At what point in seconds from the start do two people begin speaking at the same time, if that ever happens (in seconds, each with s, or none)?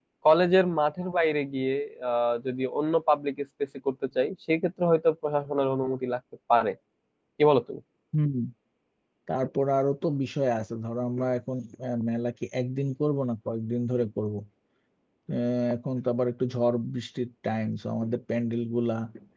none